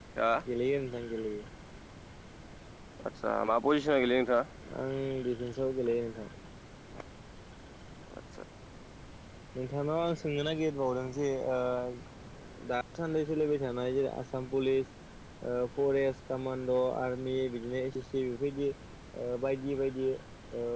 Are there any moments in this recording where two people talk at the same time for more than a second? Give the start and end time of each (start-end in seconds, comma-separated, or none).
none